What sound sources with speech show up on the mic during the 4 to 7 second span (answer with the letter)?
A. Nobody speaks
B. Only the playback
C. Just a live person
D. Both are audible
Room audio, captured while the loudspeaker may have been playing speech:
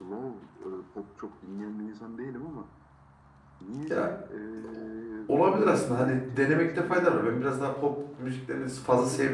D